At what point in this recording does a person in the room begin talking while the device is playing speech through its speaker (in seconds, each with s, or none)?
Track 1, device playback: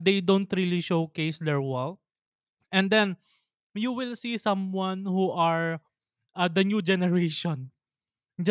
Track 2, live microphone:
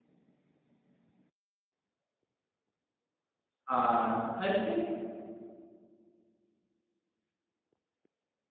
3.6 s